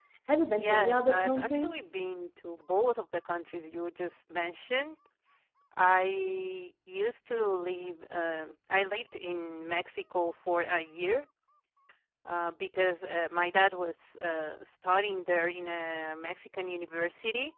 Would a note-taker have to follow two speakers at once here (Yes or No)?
Yes